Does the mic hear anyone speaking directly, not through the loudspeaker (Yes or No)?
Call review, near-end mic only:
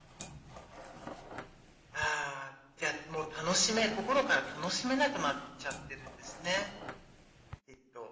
No